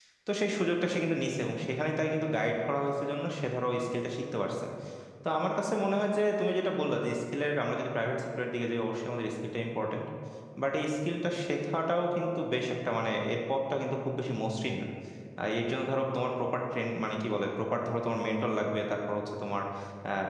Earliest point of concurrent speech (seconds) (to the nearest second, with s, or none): none